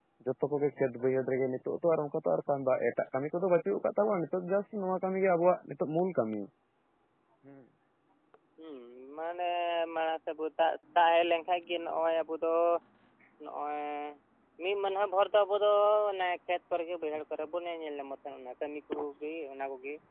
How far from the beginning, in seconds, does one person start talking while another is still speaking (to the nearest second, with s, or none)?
none